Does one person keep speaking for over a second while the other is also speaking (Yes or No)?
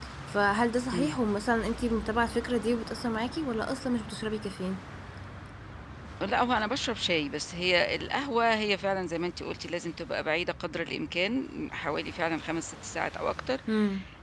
No